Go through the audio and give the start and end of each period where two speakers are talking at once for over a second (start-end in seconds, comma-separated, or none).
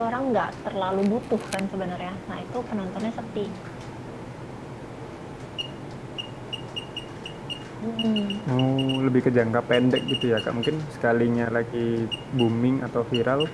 none